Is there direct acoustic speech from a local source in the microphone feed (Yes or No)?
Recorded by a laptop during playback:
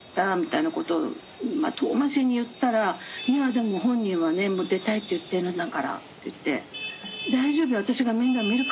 No